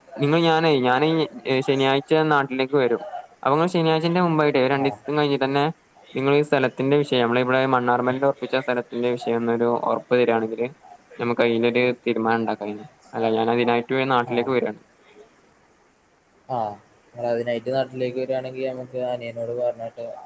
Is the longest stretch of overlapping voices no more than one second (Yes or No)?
Yes